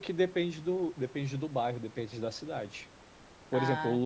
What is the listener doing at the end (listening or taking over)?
listening